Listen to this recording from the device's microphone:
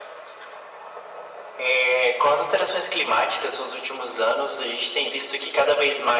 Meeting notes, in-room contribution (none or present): none